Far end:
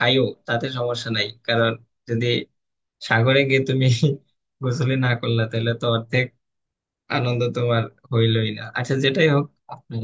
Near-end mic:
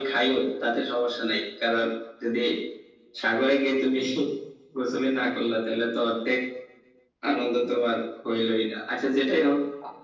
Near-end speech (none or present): none